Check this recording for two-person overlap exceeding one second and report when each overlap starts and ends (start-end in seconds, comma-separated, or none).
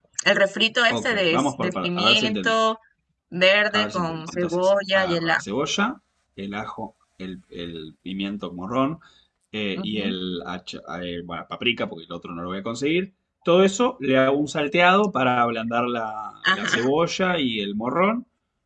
0.9-2.5, 3.7-5.4